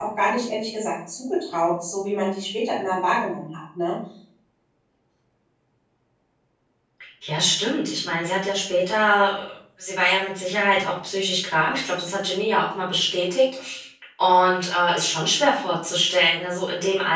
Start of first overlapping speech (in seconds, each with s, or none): none